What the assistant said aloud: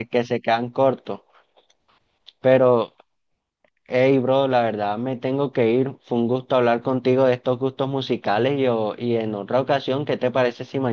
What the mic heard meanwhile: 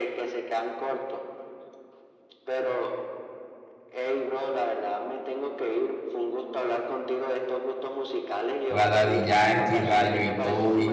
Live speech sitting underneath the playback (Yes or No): No